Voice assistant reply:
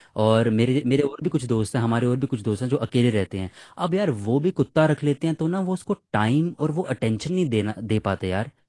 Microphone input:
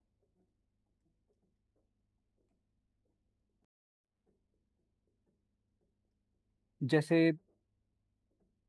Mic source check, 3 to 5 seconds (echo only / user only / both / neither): neither